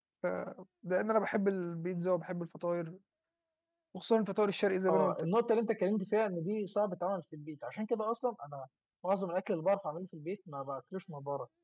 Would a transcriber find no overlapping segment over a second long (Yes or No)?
Yes